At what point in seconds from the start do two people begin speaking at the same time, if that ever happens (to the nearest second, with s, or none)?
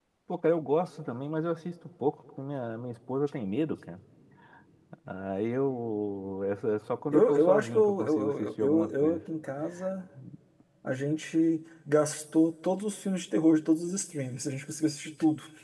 7 s